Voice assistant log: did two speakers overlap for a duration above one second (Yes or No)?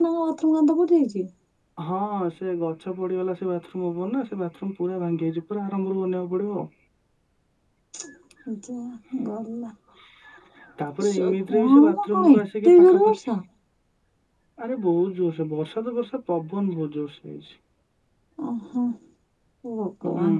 Yes